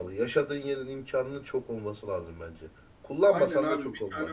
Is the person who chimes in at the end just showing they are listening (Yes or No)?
No